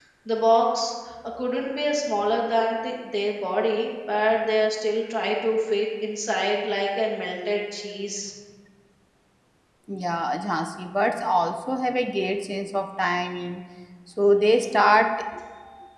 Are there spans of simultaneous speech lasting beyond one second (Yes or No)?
No